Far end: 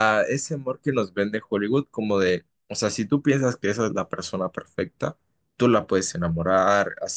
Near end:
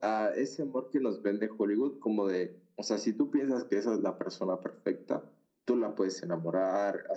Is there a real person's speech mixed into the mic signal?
No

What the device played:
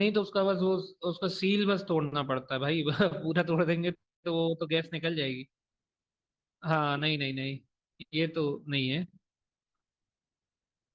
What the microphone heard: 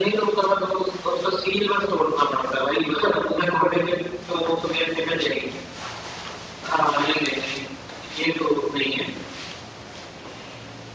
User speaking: No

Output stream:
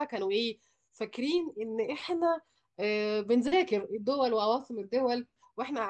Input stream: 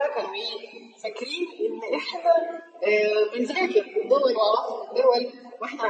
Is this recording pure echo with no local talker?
Yes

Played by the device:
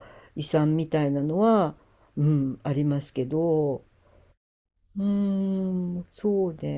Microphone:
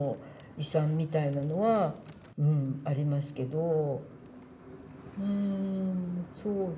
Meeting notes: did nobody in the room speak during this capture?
Yes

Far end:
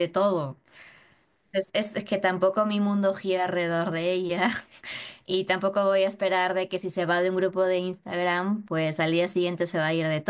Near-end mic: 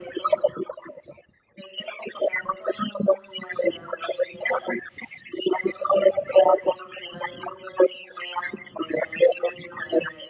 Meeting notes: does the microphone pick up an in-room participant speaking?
No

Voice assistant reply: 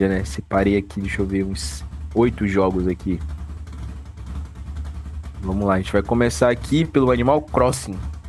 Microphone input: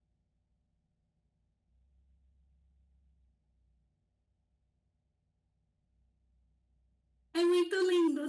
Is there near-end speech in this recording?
Yes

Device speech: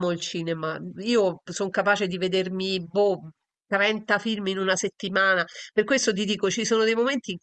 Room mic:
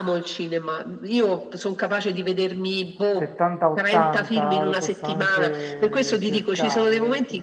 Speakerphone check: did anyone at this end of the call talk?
Yes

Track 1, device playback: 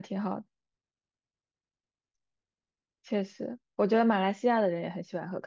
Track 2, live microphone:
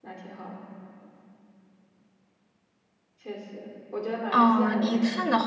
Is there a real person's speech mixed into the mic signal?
Yes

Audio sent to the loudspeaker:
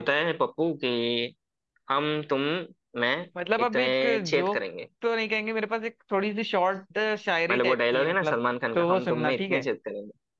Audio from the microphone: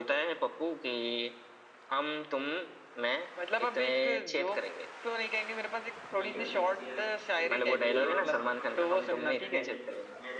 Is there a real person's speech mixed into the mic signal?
Yes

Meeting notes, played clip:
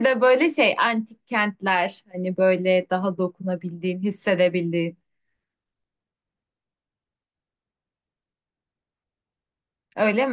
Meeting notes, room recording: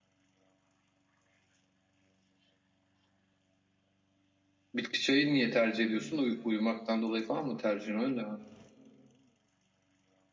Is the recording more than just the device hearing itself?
Yes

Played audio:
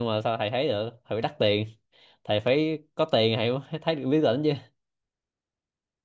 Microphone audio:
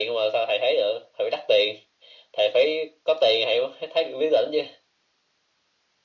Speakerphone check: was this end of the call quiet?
Yes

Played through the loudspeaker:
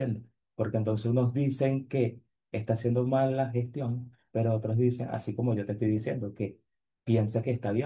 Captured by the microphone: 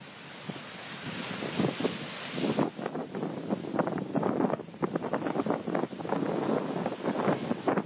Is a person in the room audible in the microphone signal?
No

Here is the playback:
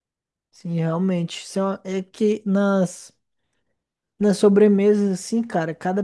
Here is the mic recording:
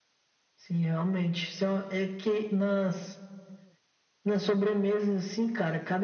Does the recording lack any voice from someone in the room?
Yes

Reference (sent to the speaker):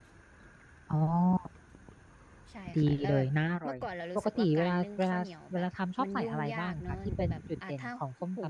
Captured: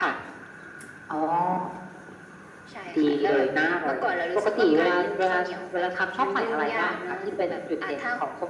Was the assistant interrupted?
No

